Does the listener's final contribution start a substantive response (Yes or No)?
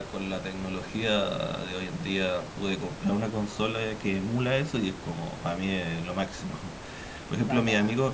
No